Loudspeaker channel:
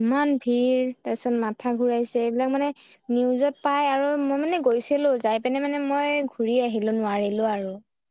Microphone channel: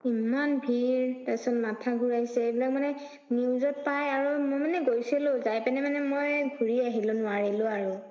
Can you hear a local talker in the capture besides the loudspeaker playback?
No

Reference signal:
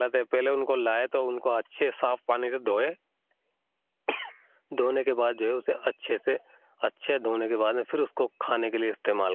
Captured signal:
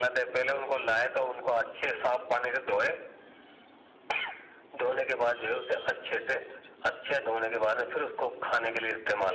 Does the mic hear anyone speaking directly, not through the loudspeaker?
No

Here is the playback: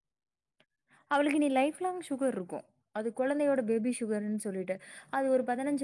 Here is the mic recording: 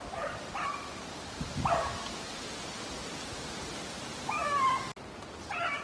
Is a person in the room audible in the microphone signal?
No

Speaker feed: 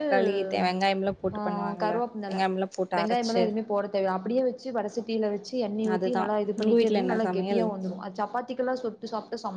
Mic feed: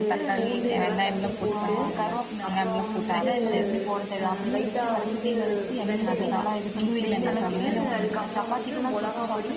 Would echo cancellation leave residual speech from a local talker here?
Yes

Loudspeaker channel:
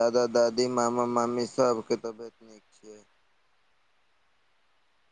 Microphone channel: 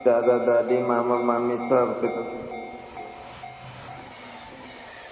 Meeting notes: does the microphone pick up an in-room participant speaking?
No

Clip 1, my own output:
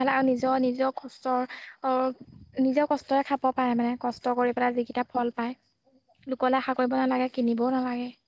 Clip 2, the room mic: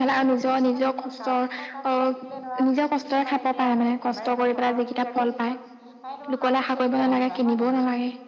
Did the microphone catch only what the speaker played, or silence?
No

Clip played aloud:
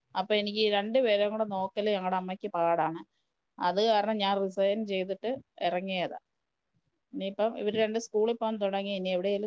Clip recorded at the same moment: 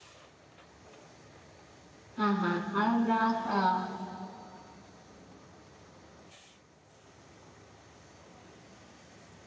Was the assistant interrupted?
Yes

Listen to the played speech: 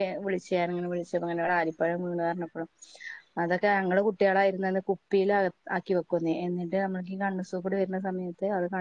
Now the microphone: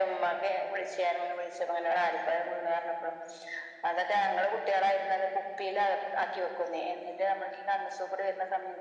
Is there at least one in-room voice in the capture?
No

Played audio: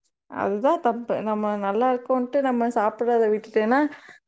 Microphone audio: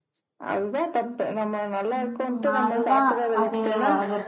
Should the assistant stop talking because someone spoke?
Yes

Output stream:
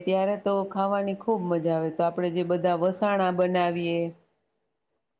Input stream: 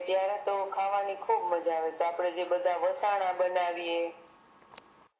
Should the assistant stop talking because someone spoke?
No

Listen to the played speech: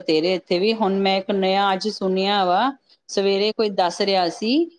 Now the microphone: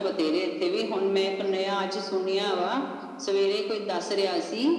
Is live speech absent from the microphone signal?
No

